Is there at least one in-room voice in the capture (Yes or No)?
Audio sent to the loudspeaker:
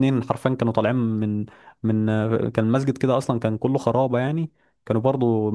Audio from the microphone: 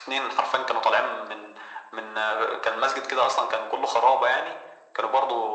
No